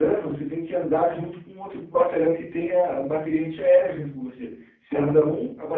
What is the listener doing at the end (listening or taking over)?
listening